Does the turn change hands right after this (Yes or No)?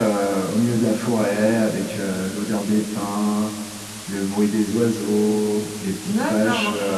Yes